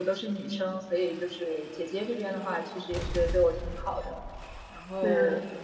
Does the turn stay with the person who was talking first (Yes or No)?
Yes